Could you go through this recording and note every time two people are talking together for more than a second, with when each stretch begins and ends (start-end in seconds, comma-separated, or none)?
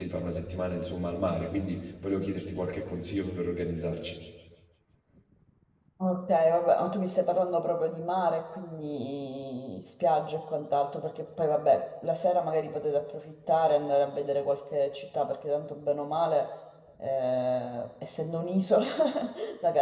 none